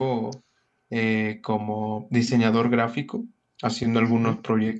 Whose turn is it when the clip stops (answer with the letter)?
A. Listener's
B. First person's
B